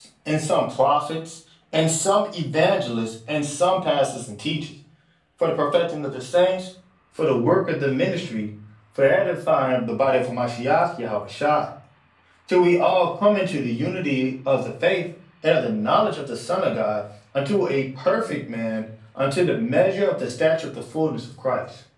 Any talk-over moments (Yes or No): No